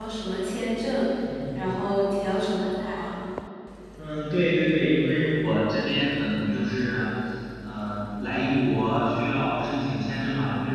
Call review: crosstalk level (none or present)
none